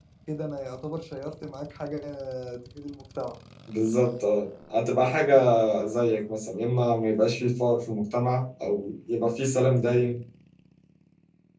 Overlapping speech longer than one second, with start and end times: none

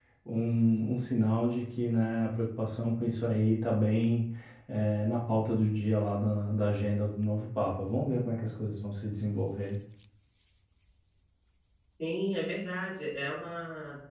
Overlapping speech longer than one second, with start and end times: none

